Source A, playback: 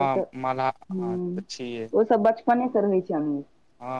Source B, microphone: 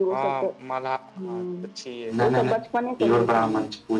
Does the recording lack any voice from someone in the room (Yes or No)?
No